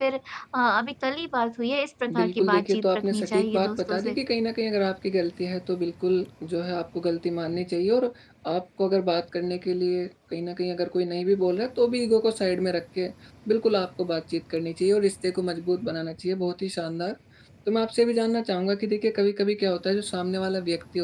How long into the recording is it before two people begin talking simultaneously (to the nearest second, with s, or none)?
2 s